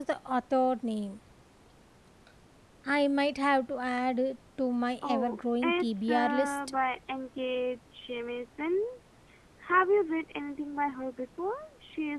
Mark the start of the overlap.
5 s

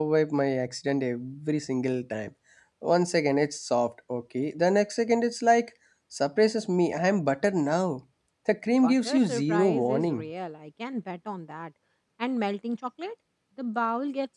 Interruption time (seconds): 9 s

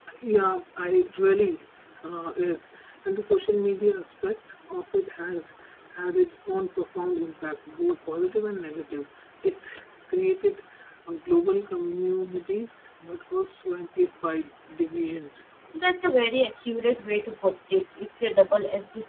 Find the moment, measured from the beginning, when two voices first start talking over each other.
none

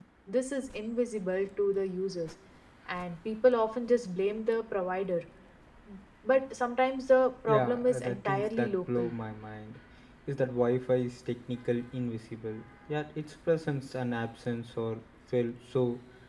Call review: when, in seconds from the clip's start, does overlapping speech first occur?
7 s

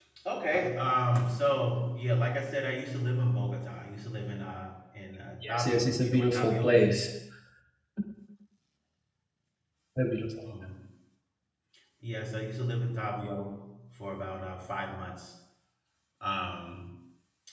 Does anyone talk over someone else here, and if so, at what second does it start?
5 s

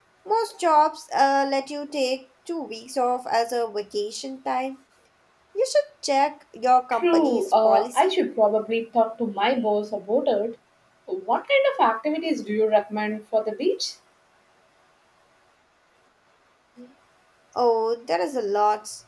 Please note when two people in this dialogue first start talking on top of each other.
7 s

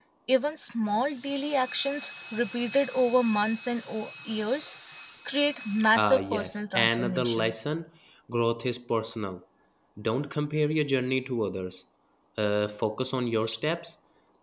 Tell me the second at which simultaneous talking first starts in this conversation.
6 s

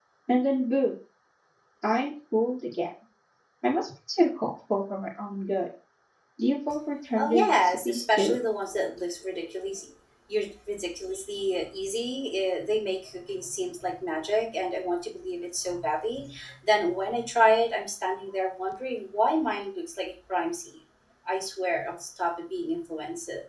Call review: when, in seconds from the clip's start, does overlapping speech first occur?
7 s

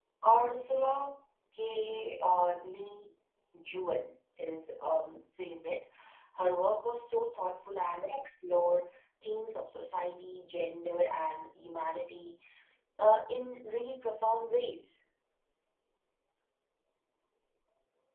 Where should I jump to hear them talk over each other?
none

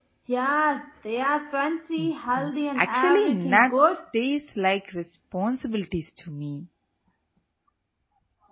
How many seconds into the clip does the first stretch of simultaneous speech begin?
2 s

